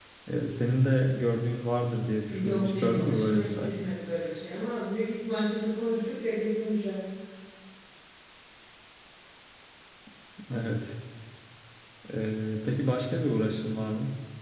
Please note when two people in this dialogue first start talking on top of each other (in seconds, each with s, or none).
2.3 s